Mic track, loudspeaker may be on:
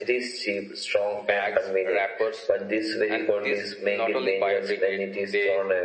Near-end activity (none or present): none